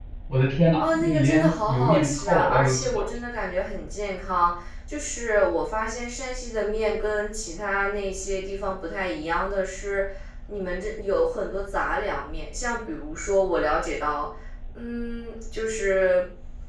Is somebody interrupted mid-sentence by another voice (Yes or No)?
Yes